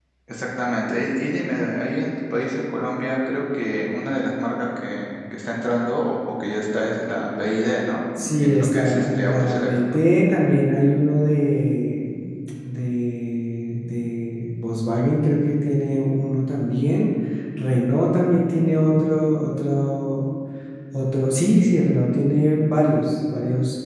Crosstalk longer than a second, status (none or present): present